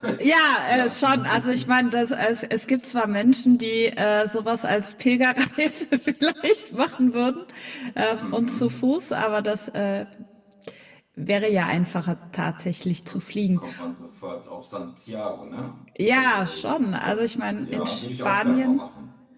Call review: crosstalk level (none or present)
present